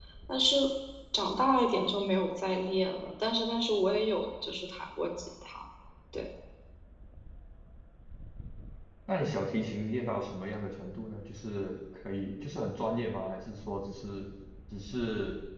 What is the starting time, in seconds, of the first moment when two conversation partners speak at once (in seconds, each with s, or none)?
none